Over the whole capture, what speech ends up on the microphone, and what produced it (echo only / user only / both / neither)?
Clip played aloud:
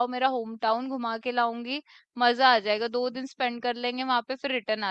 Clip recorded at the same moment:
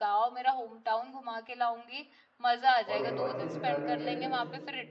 both